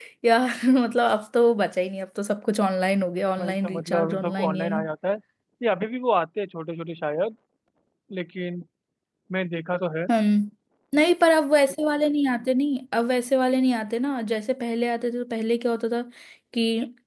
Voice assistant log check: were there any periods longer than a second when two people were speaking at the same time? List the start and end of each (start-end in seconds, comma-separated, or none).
3.4-4.7